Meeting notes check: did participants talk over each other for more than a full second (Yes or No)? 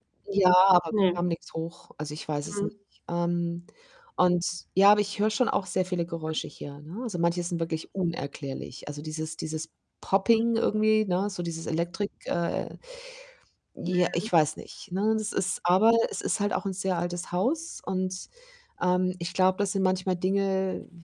No